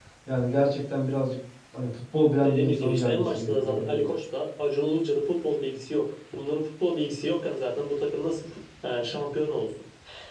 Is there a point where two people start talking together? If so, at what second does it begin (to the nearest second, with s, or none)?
2 s